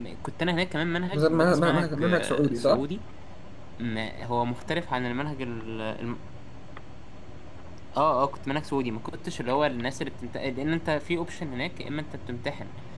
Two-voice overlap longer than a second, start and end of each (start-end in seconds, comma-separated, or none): 1.1-2.8